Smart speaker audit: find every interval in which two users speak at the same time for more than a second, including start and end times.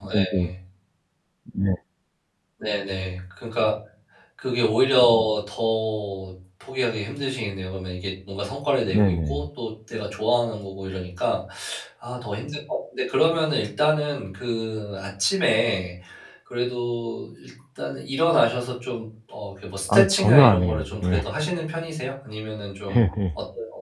19.9-21.3

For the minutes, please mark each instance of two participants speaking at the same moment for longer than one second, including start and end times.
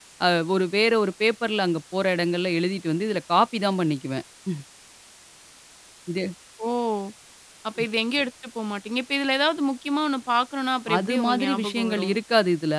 10.9-12.2

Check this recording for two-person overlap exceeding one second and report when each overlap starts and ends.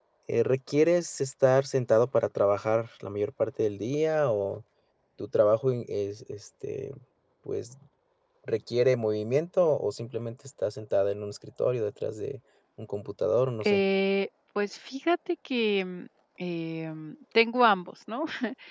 none

